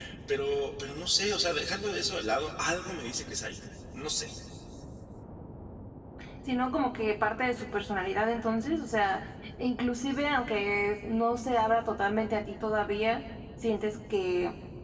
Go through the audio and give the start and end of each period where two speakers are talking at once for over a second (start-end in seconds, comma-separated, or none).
none